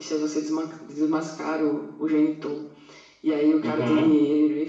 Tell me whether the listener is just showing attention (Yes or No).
Yes